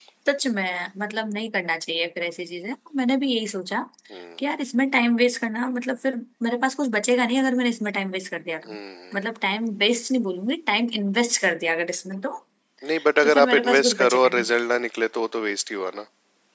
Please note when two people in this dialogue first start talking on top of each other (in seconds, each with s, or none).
13.2 s